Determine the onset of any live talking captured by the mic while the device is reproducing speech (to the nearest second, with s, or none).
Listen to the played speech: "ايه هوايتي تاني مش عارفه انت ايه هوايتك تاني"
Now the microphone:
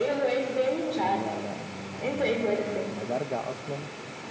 1 s